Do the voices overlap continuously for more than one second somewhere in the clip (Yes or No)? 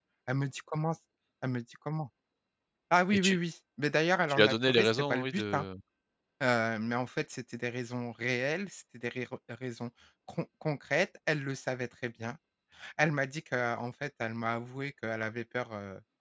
Yes